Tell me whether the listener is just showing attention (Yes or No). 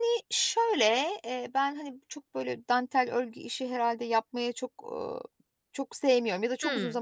Yes